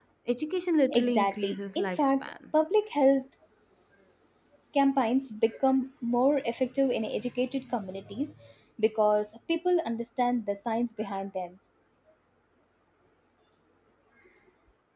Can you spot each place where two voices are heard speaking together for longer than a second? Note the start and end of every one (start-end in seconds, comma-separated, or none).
0.9-2.3